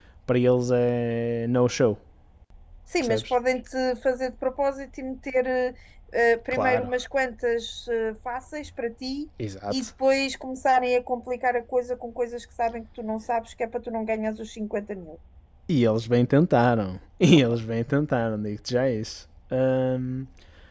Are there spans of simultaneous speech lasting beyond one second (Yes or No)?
No